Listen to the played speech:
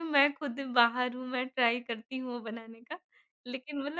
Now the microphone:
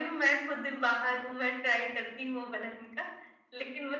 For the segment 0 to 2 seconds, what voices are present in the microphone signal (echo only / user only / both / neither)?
echo only